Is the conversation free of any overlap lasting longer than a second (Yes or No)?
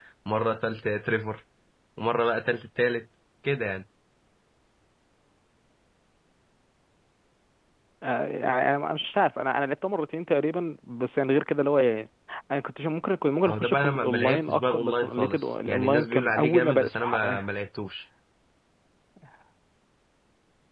No